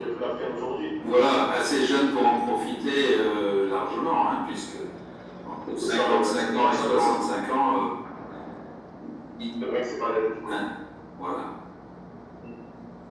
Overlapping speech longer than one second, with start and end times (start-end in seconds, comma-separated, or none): 5.8-7.2